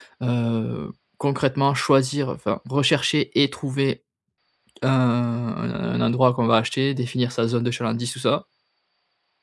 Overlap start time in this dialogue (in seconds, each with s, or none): none